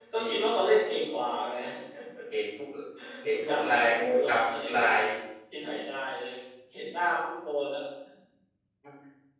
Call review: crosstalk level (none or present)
present